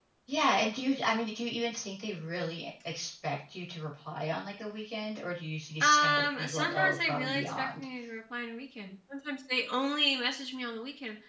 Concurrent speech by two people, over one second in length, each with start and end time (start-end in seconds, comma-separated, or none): 5.8-7.8